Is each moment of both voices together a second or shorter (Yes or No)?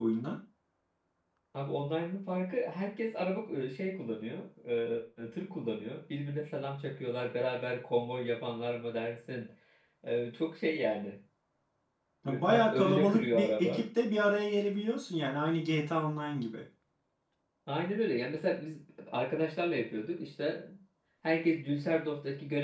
No